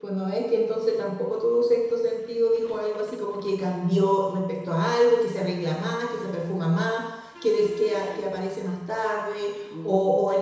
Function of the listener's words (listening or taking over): listening